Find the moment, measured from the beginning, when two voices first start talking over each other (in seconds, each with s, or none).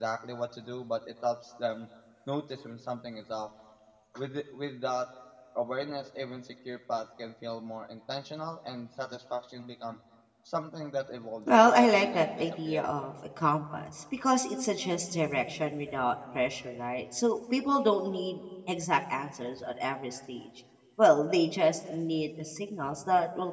11.5 s